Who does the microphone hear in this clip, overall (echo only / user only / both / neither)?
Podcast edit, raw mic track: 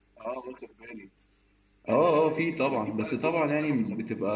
both